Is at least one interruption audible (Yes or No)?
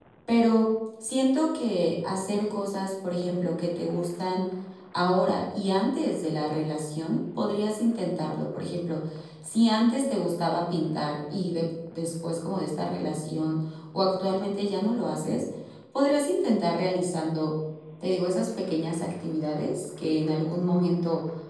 No